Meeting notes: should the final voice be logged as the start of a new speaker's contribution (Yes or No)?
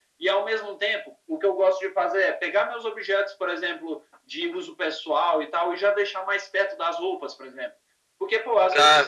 No